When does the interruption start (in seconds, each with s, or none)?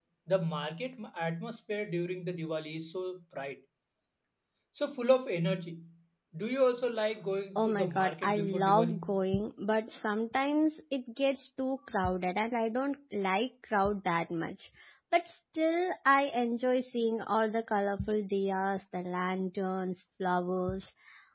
7.5 s